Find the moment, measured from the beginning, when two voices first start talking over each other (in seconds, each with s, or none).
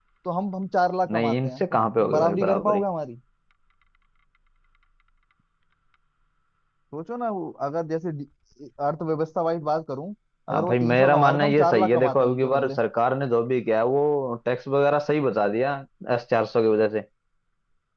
1.1 s